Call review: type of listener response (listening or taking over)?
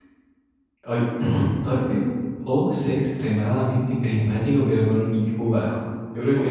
taking over